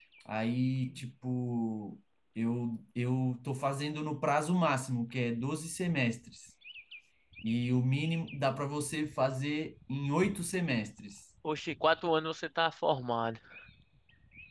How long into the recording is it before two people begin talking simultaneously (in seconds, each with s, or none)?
none